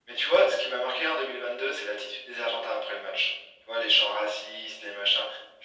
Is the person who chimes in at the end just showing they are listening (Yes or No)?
Yes